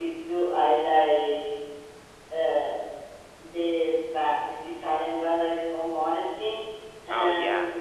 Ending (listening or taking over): listening